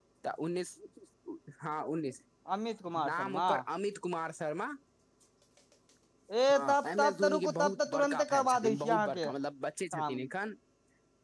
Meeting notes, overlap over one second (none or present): present